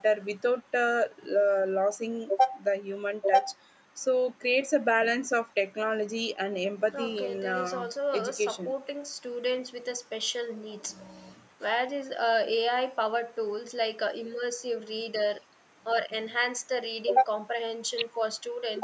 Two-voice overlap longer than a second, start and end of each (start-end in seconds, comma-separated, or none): 7.0-8.7